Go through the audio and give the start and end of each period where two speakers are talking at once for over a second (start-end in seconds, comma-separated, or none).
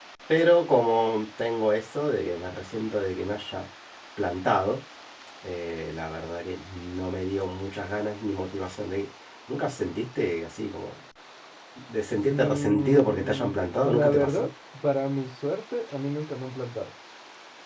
12.3-14.5